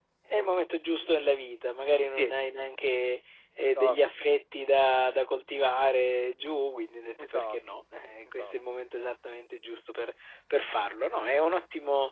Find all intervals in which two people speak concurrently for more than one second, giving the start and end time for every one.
none

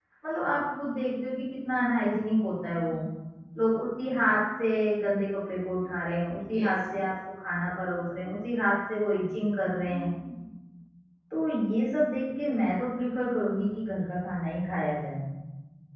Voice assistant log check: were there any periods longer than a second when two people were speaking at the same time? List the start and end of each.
none

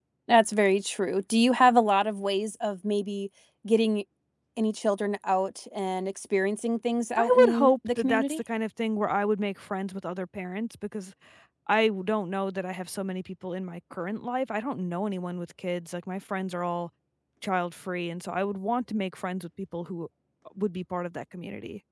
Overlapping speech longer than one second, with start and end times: 7.2-8.4

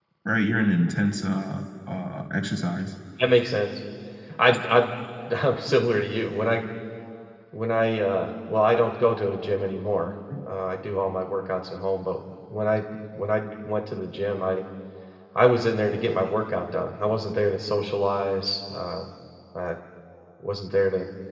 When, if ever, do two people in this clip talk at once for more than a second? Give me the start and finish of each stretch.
none

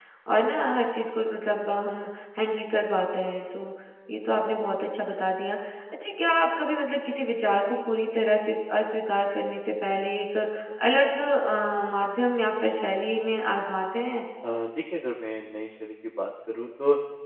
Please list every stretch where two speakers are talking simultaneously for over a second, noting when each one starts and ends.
none

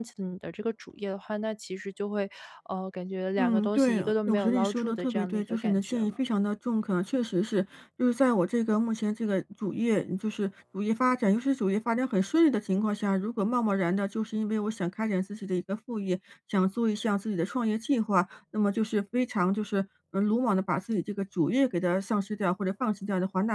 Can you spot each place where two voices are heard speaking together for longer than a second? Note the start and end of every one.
3.4-6.2

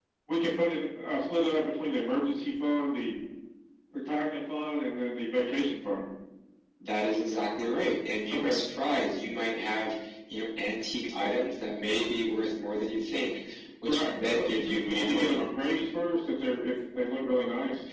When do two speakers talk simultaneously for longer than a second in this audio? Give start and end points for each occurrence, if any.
13.9-15.4

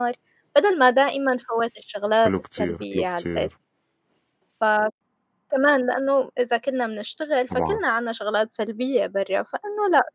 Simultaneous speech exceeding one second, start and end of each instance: 2.2-3.5

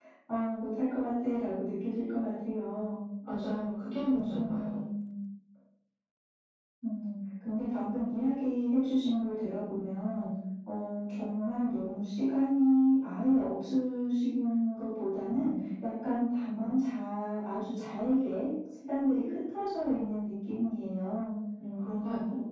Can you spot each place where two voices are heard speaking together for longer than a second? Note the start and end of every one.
none

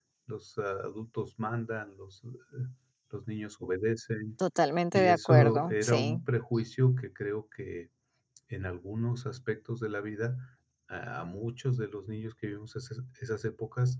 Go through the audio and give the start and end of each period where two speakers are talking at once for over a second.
4.9-6.2

